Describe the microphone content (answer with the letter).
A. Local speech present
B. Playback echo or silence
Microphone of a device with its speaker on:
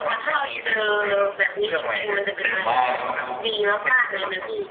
A